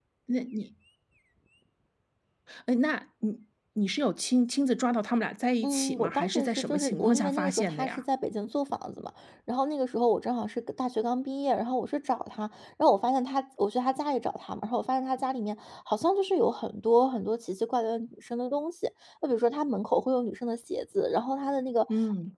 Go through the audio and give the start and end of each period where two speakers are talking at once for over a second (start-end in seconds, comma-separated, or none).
5.6-8.0